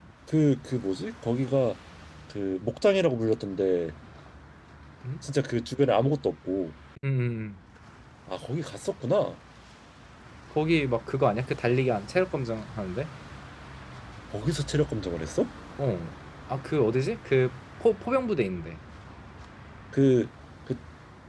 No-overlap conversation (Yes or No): Yes